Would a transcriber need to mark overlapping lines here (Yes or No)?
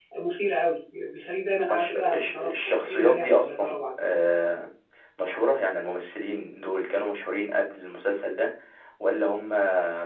Yes